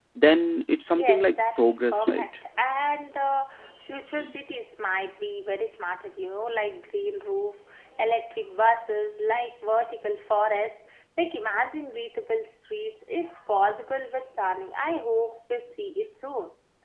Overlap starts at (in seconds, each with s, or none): 1.0 s